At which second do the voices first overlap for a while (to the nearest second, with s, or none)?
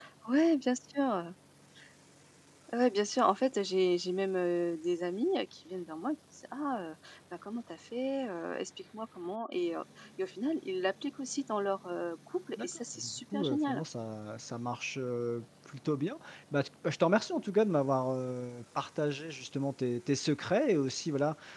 13 s